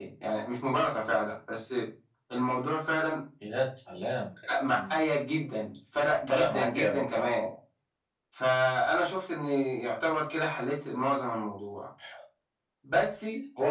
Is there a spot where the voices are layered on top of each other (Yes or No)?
Yes